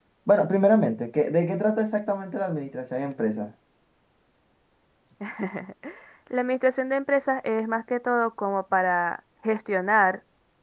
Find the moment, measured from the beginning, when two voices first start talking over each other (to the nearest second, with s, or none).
none